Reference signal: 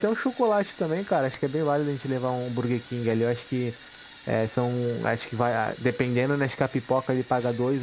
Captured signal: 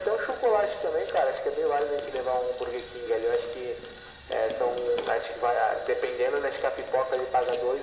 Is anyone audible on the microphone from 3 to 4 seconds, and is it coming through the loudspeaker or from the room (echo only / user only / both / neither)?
echo only